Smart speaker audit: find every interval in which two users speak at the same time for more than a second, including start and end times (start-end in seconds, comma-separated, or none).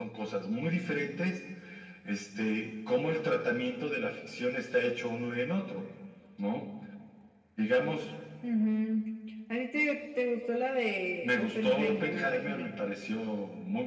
11.2-12.7